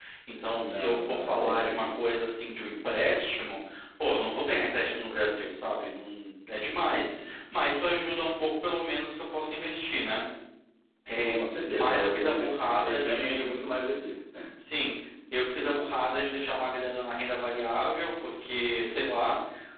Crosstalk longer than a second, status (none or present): present